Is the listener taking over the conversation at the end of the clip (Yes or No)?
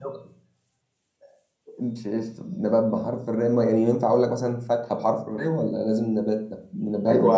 Yes